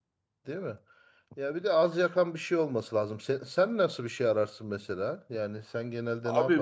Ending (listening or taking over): taking over